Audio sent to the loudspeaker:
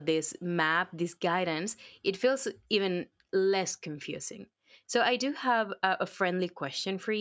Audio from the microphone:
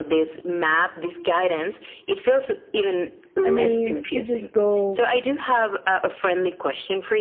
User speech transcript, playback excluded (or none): I mean, you just go